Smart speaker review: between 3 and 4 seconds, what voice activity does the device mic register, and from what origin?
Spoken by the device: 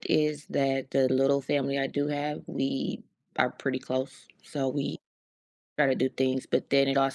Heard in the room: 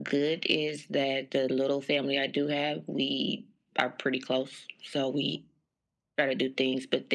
echo only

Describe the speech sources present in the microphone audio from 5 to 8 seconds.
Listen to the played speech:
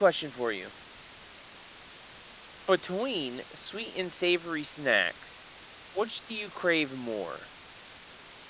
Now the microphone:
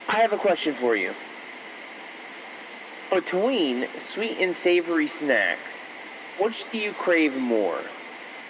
echo only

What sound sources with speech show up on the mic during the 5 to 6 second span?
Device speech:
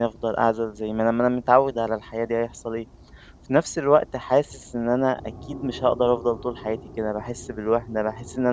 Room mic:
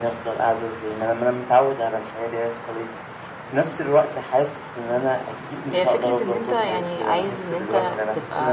both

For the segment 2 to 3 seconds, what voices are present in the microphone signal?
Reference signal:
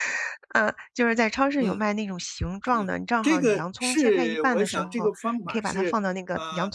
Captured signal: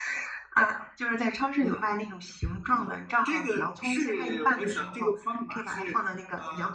echo only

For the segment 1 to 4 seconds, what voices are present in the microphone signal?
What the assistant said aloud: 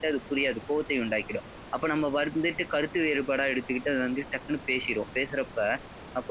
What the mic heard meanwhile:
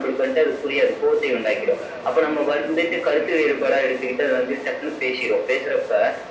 both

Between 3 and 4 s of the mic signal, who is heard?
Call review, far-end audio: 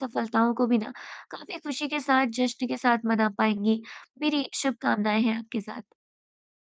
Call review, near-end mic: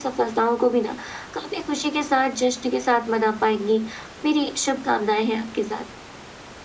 echo only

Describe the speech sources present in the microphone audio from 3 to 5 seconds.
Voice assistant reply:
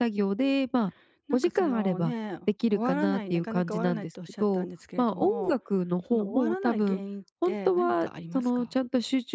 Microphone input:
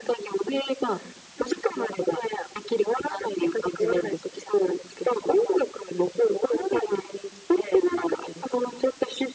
echo only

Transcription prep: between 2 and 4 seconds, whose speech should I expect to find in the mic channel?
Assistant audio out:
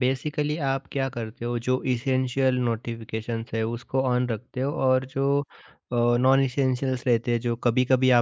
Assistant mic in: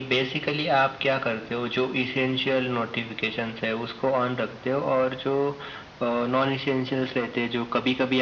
echo only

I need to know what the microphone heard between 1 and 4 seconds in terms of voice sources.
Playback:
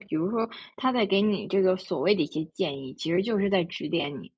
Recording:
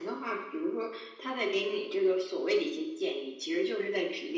echo only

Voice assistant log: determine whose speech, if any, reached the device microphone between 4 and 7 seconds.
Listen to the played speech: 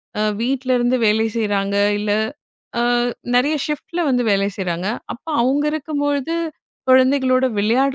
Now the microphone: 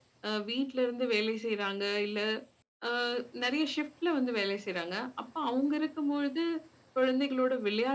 echo only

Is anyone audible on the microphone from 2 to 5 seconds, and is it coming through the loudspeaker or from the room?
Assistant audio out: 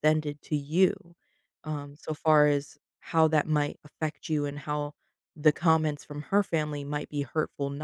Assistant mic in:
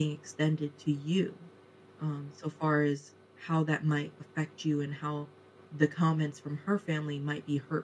echo only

